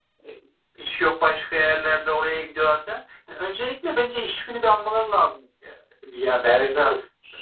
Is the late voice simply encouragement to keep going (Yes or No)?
No